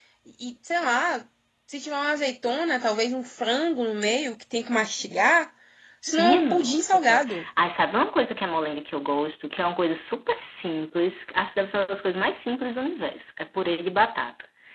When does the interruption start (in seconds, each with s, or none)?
6.2 s